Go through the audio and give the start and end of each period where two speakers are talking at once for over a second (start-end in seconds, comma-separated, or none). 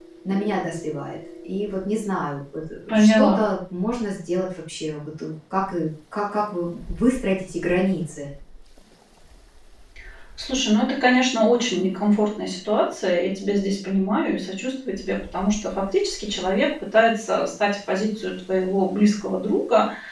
none